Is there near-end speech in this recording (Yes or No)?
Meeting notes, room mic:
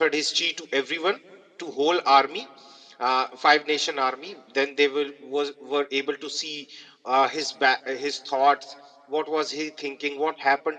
Yes